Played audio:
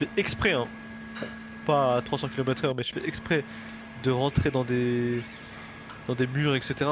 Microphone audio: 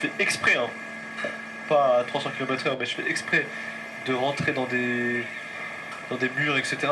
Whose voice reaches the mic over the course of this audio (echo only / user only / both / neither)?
echo only